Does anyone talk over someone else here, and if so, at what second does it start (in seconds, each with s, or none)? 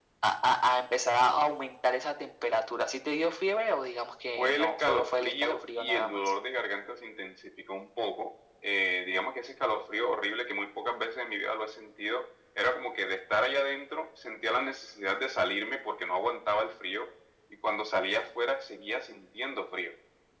4.4 s